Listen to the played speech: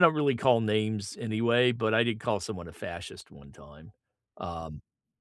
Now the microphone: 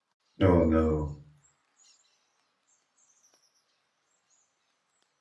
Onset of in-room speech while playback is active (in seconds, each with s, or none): 0.4 s